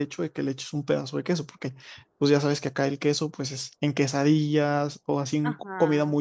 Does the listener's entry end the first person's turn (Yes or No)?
Yes